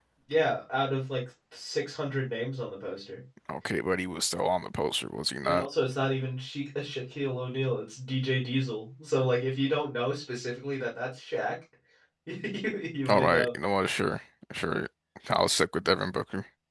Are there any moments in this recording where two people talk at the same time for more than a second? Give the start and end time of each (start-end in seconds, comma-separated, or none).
none